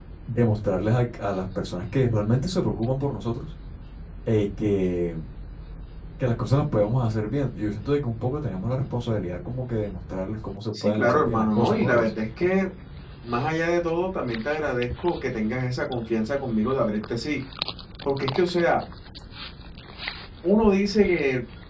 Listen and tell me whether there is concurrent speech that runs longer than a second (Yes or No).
Yes